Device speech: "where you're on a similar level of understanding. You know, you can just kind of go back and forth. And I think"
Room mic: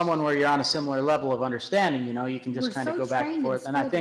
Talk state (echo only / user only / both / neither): both